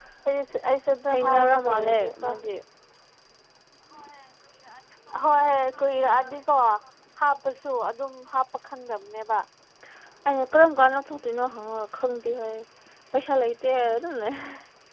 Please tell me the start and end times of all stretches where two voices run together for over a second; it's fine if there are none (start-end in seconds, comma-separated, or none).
1.1-2.3